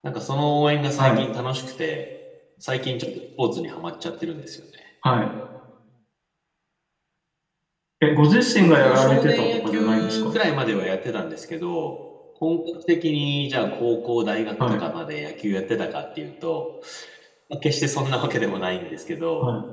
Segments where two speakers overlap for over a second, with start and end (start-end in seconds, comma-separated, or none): 8.6-10.3